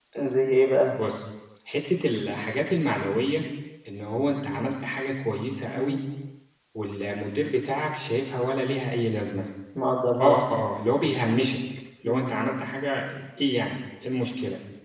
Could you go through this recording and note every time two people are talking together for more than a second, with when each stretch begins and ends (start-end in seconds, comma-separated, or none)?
none